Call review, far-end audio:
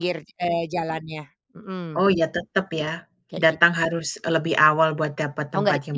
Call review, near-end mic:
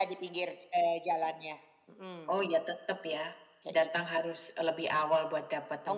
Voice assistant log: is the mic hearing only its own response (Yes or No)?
Yes